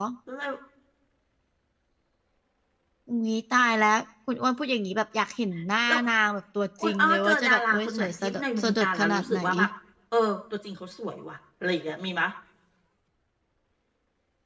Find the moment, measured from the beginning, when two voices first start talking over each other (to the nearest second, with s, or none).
7 s